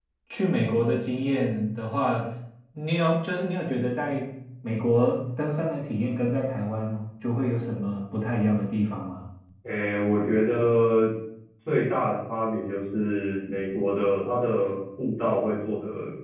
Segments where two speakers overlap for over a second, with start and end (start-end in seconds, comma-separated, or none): none